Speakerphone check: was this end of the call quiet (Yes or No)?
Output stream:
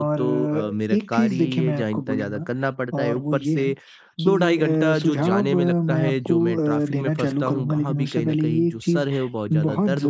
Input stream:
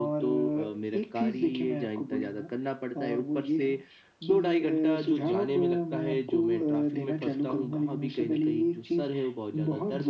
Yes